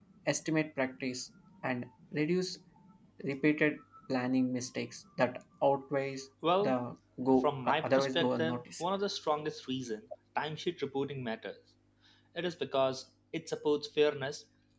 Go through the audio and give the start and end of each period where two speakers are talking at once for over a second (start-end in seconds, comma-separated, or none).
7.4-8.9